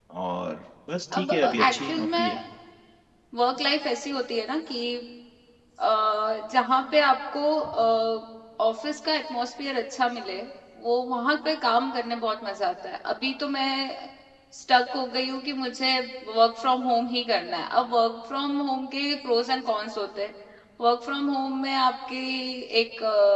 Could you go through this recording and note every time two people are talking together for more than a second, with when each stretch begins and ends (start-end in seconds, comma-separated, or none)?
1.2-2.4